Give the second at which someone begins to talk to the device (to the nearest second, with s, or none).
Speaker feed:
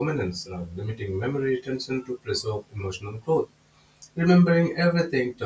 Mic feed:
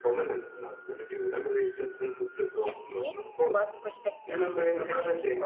3 s